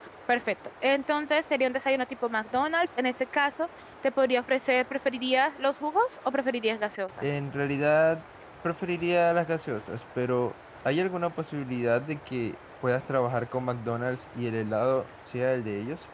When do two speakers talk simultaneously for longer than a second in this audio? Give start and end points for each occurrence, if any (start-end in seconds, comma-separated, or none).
none